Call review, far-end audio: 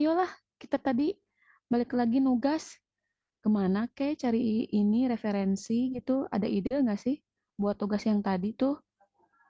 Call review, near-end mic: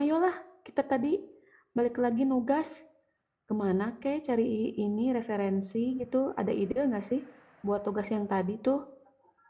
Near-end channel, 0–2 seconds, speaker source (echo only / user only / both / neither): echo only